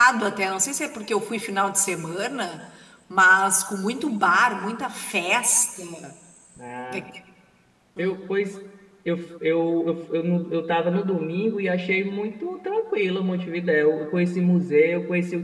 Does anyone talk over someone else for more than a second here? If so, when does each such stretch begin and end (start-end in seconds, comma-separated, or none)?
none